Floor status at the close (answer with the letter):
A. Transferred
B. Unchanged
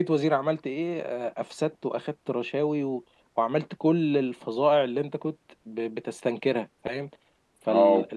A